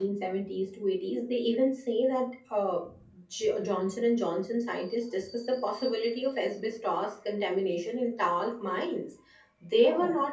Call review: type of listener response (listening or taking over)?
listening